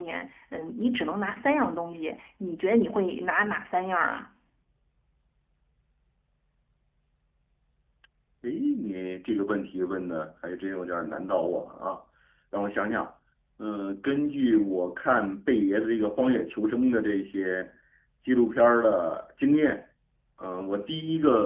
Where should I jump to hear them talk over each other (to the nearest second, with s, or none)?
none